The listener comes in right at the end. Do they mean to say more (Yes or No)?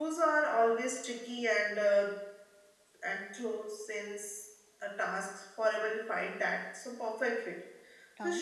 No